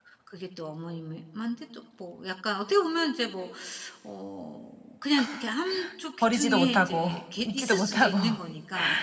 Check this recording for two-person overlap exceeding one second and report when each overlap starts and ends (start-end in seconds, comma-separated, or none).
6.2-8.2